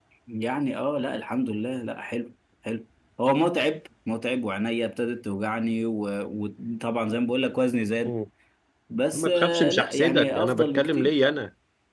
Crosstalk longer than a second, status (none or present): present